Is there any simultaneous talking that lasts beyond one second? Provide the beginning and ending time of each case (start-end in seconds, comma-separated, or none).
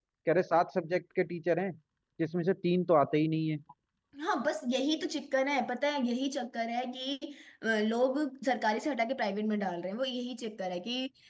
none